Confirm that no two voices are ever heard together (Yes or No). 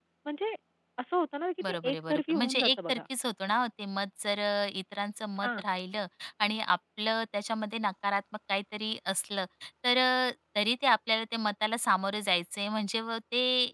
No